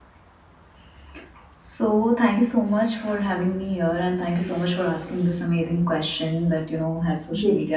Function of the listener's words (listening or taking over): listening